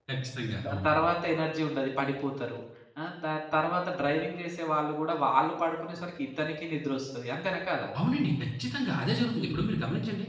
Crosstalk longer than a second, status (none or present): none